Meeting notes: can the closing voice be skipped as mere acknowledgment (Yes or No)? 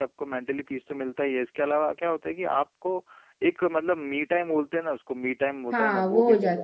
No